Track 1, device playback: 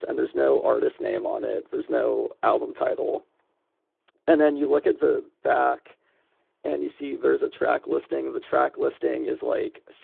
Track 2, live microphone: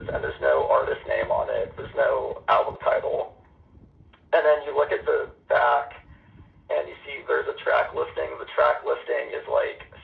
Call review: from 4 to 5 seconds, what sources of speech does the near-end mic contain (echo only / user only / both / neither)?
echo only